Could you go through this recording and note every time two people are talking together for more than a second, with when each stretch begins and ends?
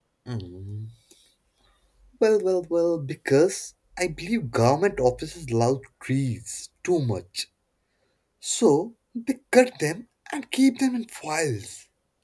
none

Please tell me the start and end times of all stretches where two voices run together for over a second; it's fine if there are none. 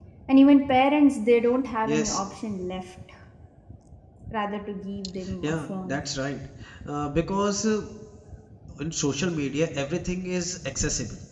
none

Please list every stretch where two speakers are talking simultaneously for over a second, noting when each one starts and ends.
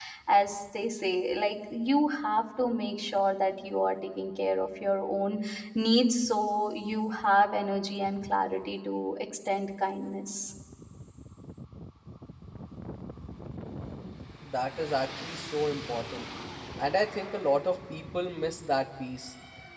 none

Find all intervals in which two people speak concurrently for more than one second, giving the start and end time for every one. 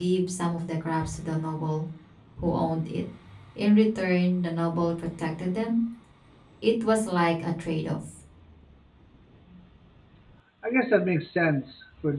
none

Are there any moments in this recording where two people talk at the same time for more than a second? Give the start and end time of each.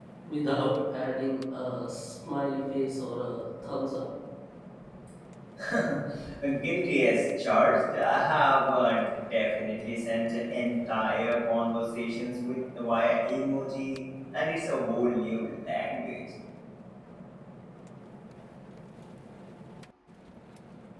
none

